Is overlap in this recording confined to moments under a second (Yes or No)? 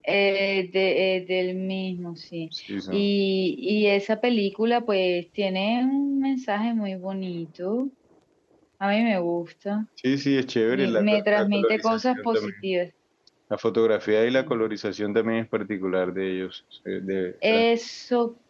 No